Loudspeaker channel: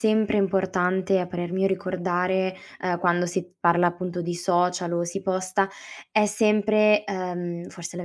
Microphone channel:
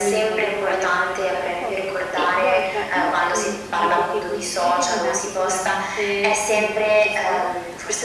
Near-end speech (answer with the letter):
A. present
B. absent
A